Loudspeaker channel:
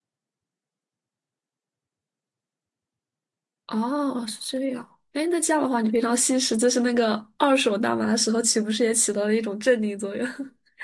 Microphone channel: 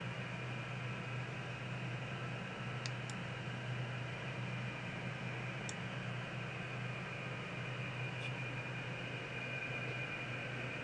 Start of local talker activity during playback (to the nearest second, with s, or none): none